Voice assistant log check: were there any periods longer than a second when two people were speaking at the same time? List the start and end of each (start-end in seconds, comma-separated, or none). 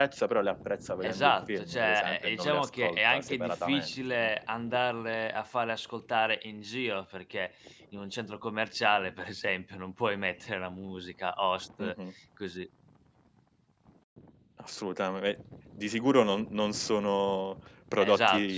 1.0-4.3